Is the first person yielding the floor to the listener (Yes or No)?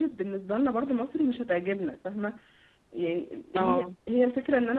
No